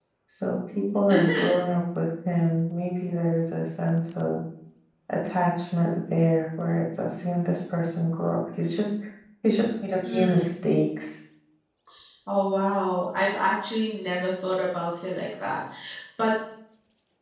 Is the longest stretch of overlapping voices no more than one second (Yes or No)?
Yes